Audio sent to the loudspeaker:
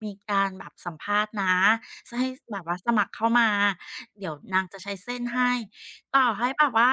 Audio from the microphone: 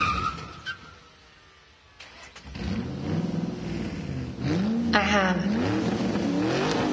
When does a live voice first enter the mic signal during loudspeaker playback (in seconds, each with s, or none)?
4.9 s